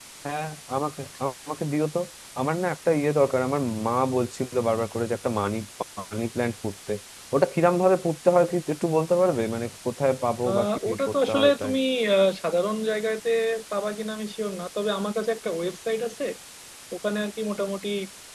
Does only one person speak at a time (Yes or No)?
No